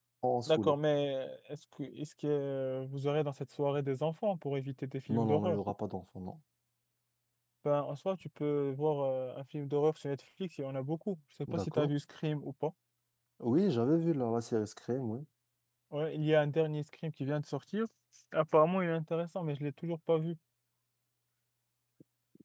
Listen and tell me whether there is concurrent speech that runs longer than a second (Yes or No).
No